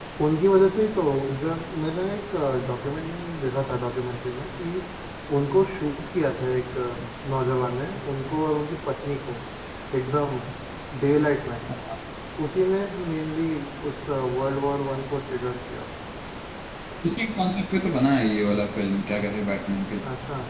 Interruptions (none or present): none